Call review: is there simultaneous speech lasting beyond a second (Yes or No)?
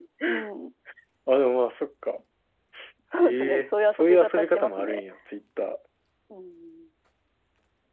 Yes